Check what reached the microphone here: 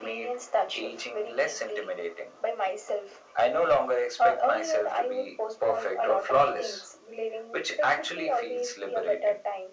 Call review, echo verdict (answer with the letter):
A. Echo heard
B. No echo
A